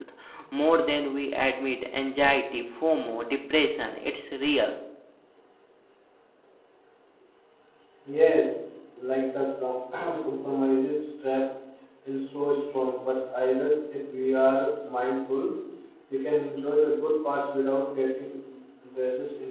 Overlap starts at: none

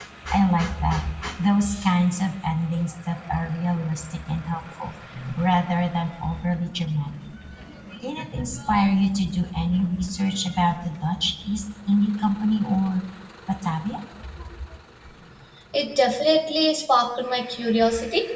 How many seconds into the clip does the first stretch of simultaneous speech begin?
none

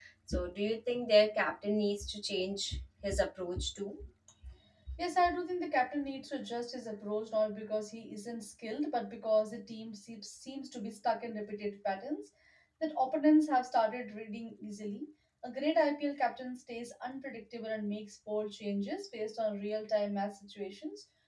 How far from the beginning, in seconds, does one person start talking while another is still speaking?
none

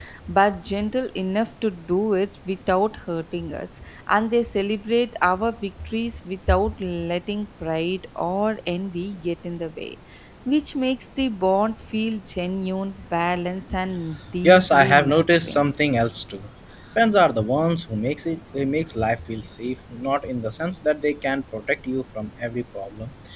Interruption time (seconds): 14 s

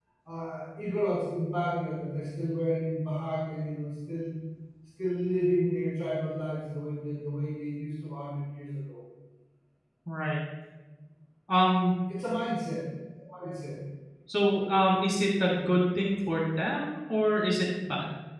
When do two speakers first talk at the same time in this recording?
none

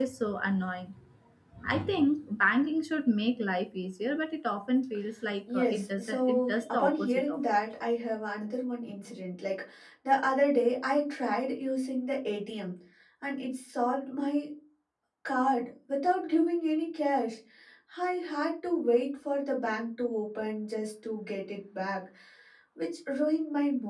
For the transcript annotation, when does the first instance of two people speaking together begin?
5 s

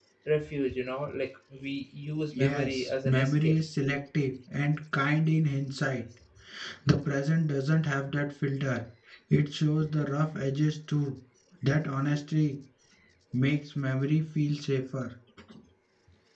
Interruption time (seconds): 2 s

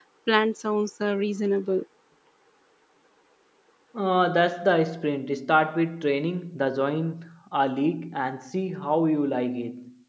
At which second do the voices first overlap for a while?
none

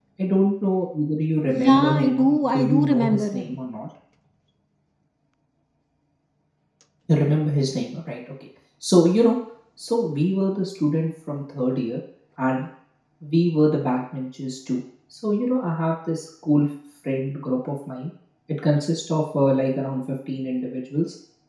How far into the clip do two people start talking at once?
2 s

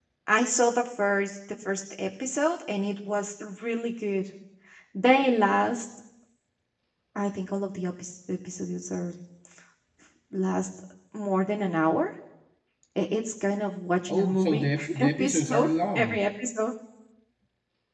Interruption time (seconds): 14 s

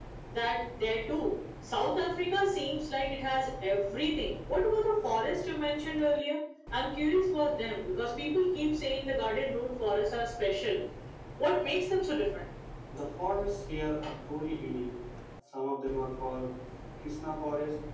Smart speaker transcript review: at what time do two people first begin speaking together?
none

